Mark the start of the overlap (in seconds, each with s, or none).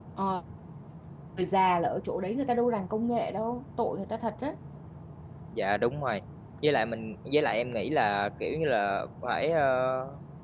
none